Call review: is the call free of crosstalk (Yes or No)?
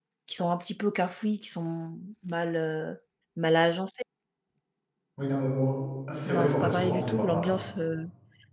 No